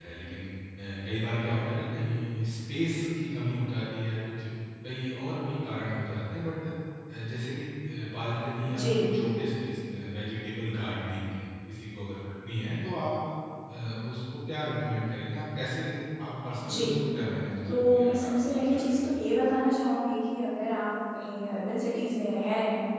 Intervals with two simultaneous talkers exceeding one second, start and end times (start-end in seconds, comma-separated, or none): 17.7-19.1